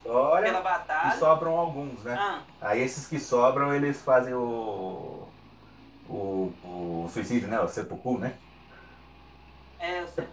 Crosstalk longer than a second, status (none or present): none